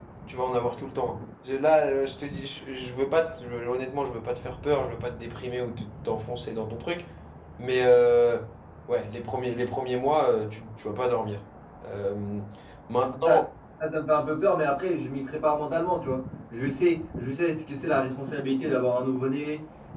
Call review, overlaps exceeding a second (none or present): none